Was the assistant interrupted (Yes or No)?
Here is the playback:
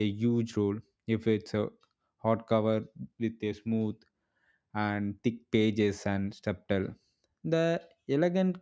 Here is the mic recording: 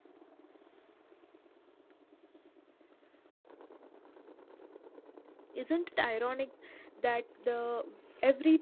Yes